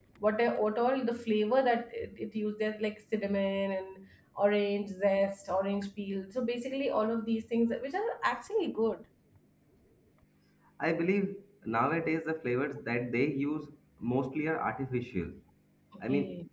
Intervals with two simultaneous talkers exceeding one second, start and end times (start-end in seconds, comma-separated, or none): none